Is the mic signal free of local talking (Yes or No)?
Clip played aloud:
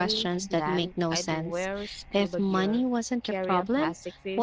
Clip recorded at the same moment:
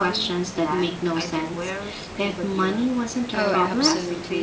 No